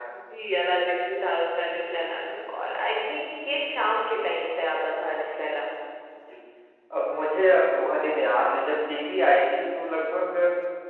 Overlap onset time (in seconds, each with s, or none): none